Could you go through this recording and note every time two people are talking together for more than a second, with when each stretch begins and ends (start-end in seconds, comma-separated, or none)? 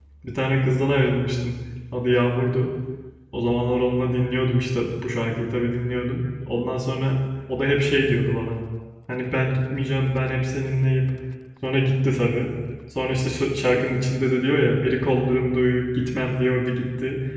none